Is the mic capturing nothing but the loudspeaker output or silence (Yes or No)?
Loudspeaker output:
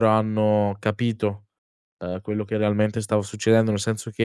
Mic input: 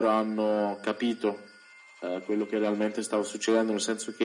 Yes